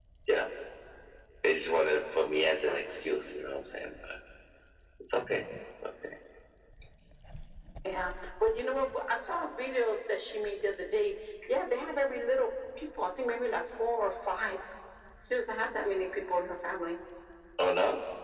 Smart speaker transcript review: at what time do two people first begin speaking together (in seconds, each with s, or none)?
none